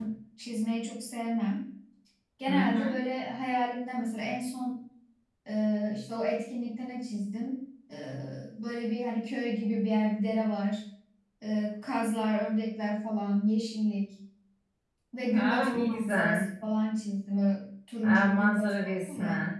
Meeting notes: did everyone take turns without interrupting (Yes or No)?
No